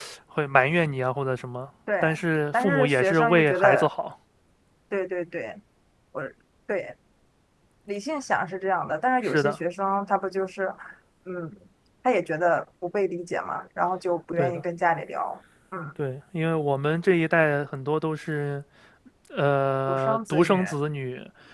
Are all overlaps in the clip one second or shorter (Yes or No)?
No